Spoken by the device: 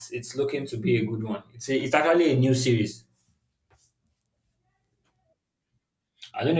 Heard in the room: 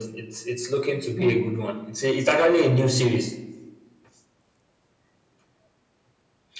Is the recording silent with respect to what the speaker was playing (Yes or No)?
No